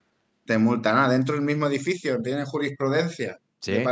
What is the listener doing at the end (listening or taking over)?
listening